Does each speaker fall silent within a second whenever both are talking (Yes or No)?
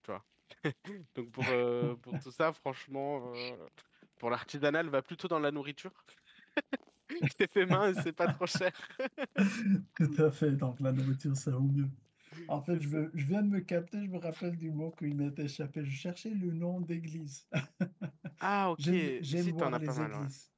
No